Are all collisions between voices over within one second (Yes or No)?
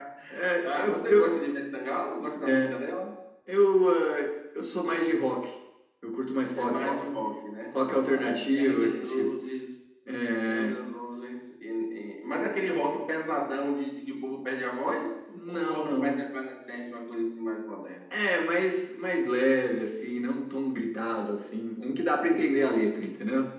No